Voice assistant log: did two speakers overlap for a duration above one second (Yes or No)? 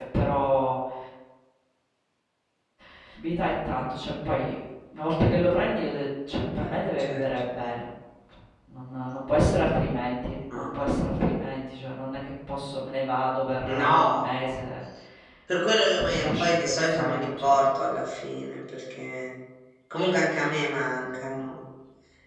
Yes